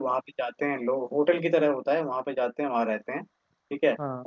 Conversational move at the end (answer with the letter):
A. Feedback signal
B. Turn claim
A